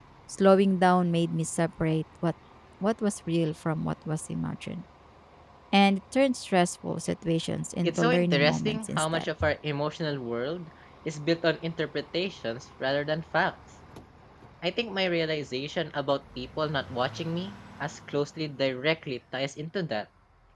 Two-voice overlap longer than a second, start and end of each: 7.8-9.3

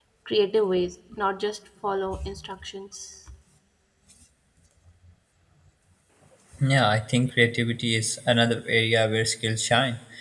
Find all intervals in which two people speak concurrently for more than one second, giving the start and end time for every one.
none

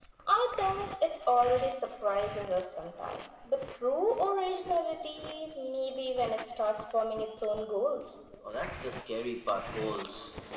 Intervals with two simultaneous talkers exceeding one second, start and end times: none

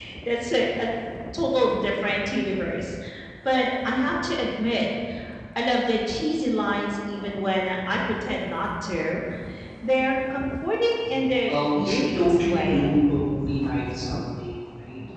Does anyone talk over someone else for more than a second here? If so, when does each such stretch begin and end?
11.5-12.9

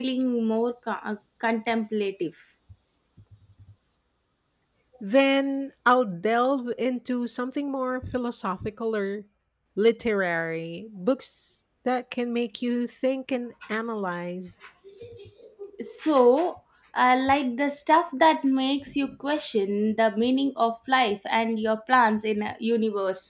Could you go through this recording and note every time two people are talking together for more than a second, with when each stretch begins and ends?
none

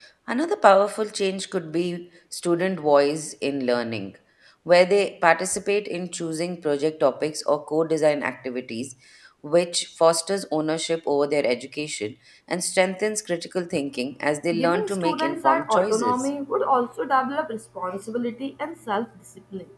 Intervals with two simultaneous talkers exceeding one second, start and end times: 14.6-16.3

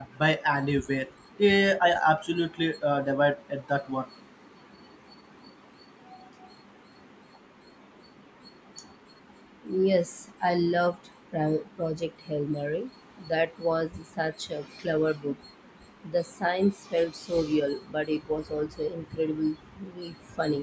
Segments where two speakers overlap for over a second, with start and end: none

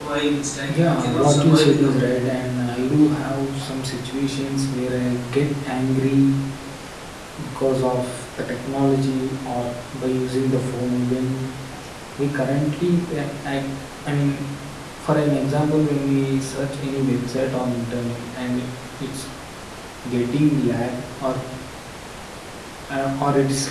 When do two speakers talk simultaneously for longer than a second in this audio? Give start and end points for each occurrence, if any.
0.9-2.1

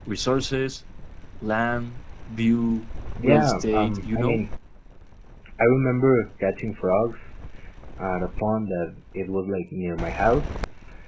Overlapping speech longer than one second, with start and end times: 3.2-4.4

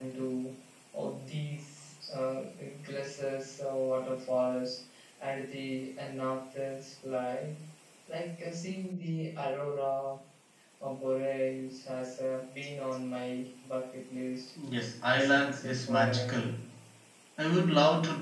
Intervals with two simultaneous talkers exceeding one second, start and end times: 15.1-16.3

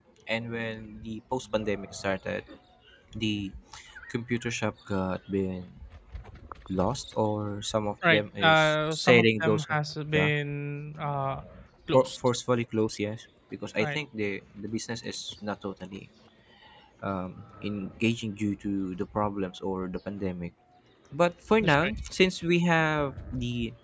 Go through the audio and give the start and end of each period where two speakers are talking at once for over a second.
8.1-9.7

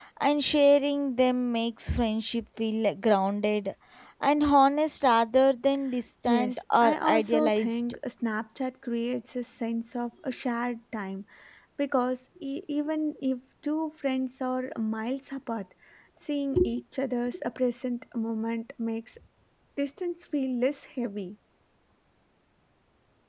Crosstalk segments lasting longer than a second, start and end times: 6.2-7.8

